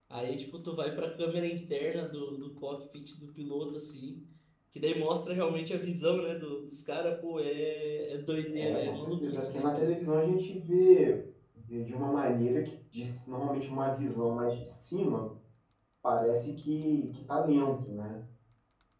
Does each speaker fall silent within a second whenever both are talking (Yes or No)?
No